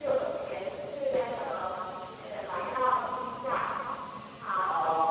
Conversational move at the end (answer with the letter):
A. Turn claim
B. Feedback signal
B